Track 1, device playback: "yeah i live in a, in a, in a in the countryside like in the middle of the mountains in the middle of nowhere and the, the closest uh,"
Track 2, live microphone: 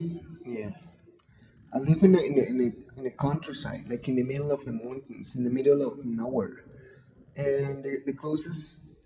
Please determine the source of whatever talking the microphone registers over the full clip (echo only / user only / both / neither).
echo only